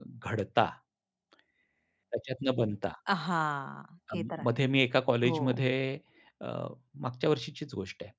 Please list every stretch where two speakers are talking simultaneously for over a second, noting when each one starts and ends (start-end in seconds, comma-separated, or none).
none